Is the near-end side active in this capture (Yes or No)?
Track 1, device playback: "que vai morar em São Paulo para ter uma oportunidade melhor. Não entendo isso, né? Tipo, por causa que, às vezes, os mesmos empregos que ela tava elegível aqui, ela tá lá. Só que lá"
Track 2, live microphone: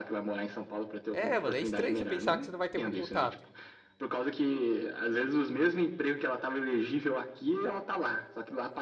Yes